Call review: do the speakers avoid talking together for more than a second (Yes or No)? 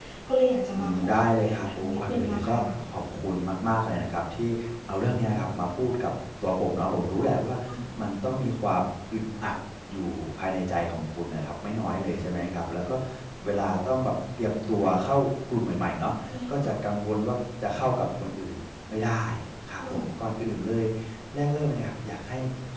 No